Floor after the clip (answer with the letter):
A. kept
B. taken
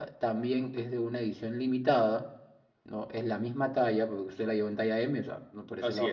A